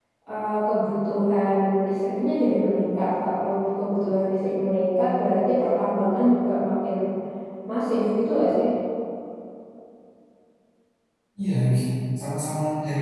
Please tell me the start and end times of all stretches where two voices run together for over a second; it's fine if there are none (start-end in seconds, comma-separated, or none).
none